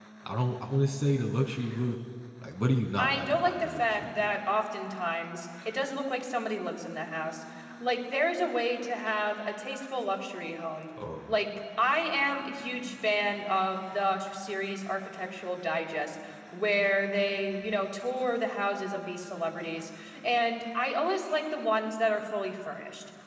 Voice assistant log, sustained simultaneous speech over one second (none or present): present